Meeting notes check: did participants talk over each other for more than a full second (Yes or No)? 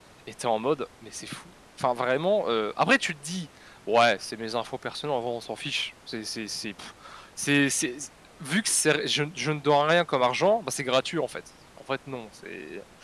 No